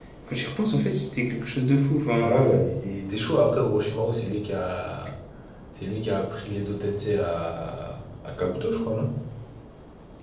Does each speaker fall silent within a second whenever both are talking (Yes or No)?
Yes